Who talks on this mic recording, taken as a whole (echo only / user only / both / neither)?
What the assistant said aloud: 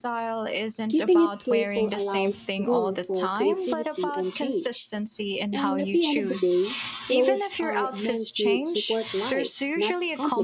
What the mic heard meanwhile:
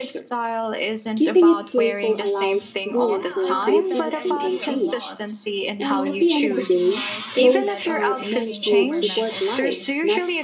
both